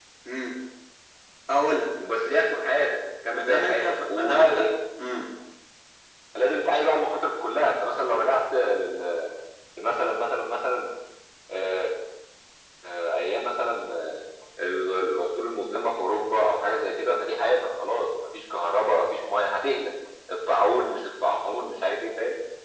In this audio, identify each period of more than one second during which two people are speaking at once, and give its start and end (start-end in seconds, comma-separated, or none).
3.3-4.7